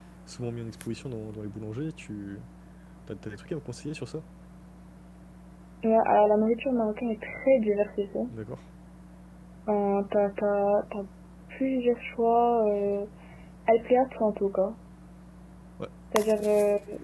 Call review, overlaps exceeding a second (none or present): none